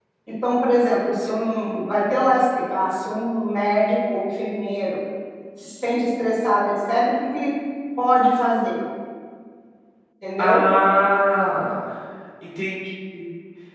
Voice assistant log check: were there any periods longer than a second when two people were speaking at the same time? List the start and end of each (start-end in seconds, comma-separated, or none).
none